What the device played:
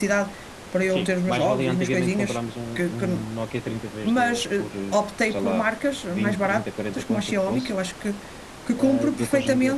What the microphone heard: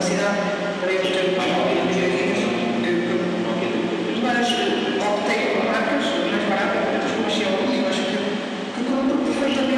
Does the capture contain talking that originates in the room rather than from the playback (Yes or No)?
No